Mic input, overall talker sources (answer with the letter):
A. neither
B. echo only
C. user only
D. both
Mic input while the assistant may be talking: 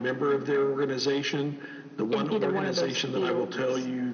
B